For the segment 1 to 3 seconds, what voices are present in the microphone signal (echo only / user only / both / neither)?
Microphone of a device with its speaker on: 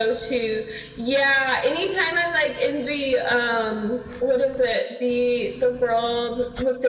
echo only